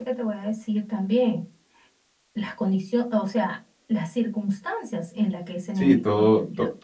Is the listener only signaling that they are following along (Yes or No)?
No